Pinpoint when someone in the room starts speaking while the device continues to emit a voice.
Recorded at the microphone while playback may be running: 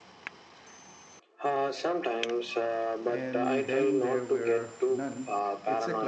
3.0 s

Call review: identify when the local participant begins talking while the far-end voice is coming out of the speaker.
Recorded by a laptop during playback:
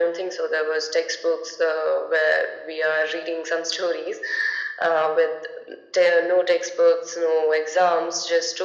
none

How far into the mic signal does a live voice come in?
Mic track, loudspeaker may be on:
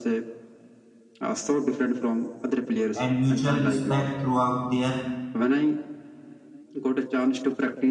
2.9 s

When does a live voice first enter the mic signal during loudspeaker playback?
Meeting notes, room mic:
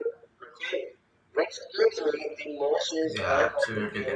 3.1 s

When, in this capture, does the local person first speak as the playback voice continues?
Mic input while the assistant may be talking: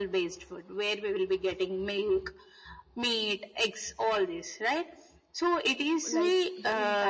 6.1 s

